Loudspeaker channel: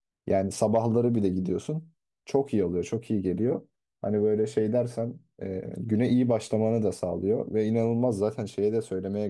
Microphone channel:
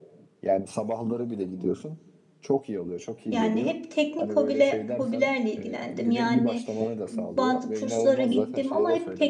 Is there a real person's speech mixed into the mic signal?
Yes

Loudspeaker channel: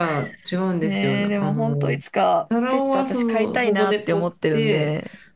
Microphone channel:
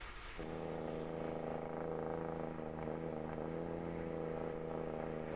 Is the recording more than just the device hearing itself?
No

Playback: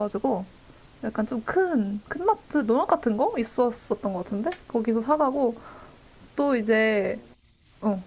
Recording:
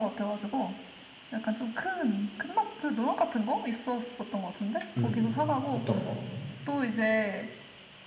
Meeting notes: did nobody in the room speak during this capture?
No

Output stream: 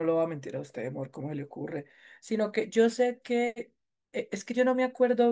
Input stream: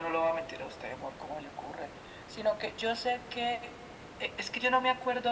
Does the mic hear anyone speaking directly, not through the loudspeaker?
No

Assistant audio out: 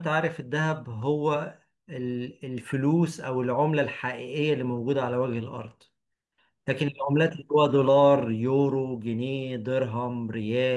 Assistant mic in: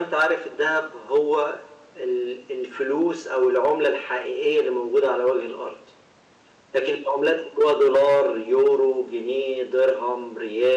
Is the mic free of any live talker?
Yes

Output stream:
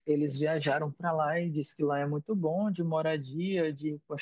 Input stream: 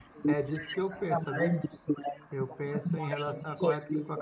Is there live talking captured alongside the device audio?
Yes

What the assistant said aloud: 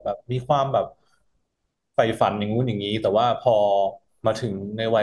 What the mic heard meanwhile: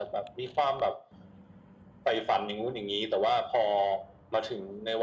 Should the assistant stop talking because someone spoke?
No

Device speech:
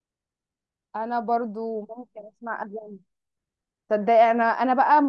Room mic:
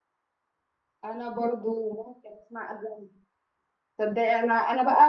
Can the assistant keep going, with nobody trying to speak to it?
Yes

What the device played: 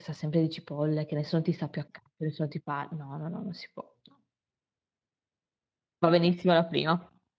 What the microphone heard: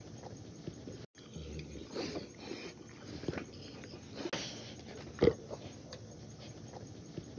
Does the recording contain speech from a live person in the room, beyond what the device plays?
No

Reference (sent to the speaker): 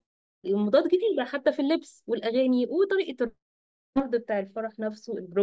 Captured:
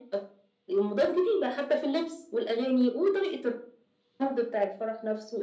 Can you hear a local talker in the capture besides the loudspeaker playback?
No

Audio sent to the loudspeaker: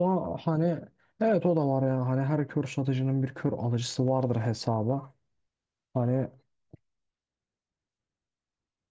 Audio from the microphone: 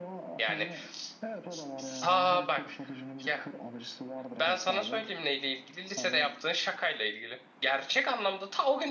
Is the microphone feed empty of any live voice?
No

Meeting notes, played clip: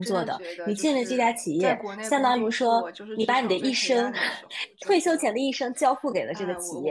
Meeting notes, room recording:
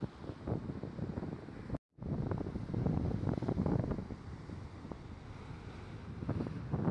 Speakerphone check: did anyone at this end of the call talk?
No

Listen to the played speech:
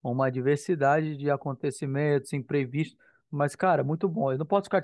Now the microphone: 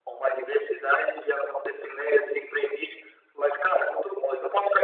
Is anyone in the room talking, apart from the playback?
No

